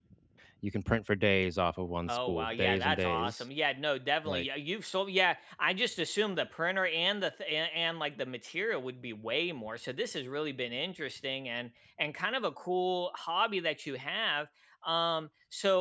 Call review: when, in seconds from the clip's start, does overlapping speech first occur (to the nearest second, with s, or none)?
2 s